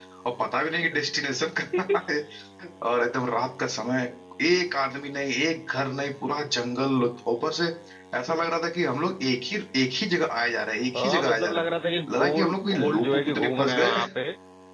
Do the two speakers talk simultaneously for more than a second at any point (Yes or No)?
Yes